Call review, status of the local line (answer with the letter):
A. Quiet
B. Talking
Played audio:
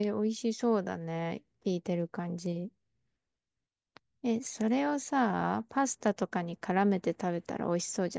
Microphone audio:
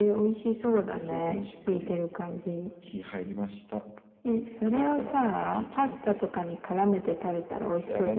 B